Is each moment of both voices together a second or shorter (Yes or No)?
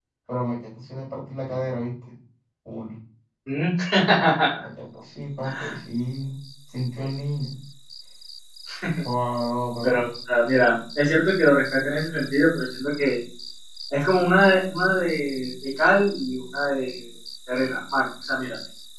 Yes